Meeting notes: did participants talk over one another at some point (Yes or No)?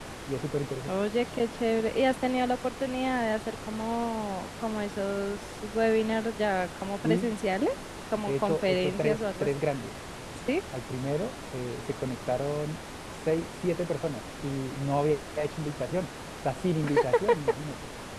Yes